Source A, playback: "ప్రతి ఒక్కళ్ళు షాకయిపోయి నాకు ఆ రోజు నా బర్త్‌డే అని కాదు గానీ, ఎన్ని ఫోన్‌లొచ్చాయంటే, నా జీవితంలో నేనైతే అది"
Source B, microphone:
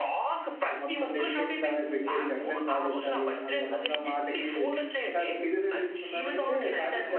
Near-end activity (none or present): present